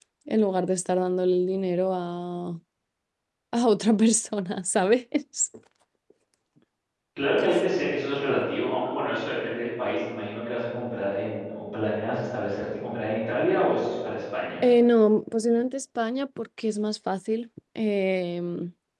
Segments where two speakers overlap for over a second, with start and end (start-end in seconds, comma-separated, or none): none